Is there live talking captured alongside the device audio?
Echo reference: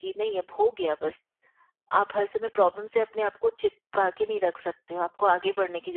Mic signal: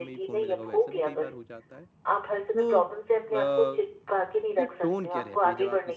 Yes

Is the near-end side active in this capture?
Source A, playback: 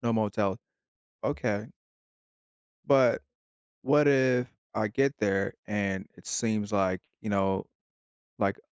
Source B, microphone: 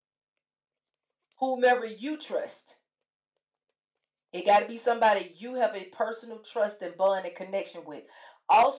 Yes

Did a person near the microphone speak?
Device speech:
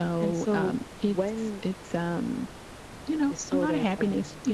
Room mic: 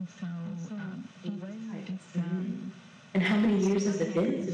Yes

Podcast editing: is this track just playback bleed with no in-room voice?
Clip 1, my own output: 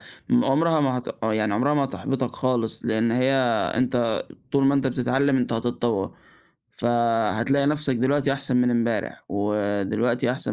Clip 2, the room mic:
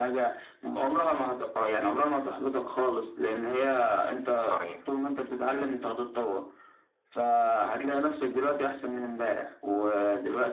No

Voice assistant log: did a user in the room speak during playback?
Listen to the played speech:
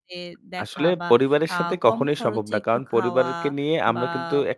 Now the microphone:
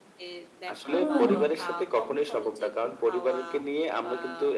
Yes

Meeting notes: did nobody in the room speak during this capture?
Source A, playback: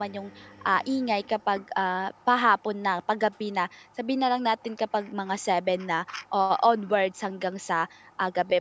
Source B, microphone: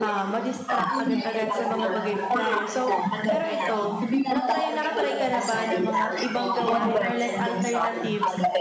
No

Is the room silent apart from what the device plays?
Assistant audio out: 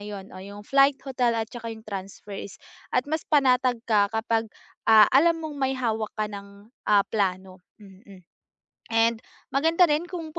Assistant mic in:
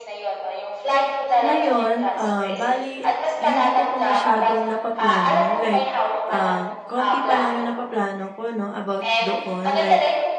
No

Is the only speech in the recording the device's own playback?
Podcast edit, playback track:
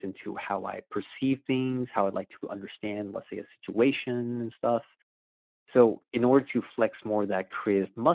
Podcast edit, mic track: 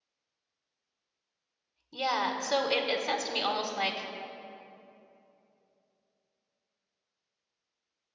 No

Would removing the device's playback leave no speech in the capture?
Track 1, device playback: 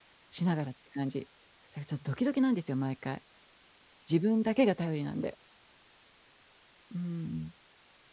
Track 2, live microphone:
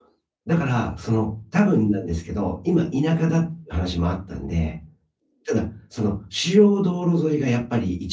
No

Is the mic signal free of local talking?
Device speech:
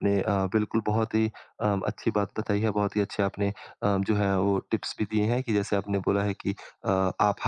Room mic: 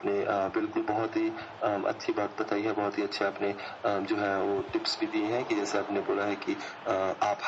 Yes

